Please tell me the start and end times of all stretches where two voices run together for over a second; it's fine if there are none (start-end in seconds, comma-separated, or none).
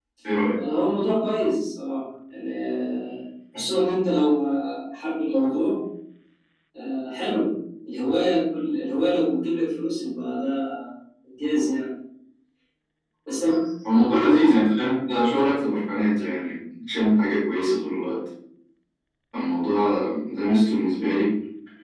none